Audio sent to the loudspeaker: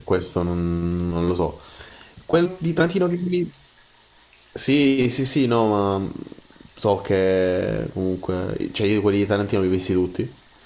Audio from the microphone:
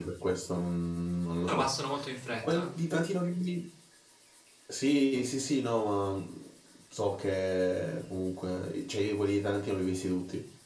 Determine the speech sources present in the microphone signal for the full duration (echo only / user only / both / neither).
both